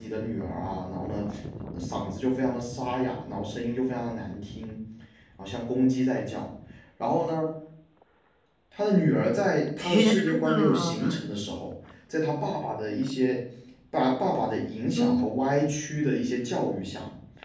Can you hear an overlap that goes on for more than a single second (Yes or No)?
Yes